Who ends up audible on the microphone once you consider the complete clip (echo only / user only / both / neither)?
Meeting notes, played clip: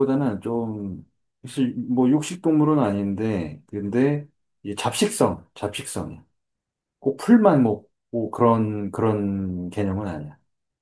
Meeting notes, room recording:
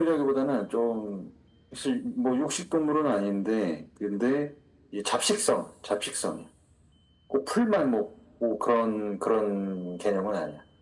echo only